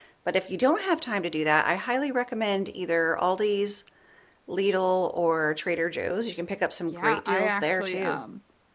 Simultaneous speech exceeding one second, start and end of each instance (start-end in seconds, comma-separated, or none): 6.9-8.2